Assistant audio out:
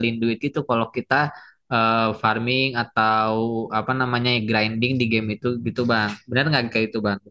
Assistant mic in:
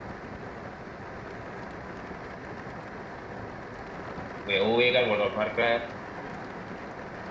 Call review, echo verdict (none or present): none